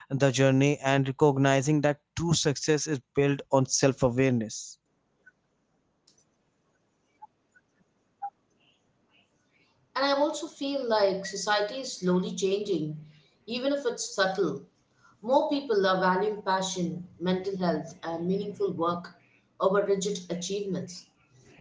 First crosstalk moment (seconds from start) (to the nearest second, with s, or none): none